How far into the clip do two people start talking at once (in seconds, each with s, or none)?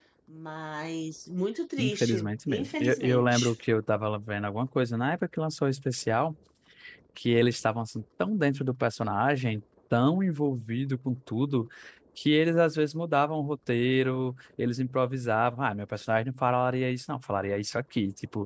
1.8 s